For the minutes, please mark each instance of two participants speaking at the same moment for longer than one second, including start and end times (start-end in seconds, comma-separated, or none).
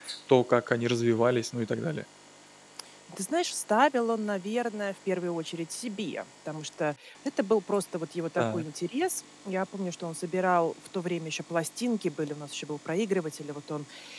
none